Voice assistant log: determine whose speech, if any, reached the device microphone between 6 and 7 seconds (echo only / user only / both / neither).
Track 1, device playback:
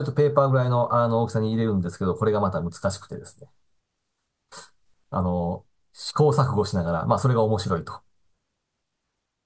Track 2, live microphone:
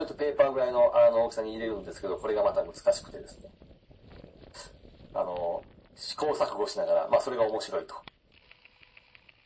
echo only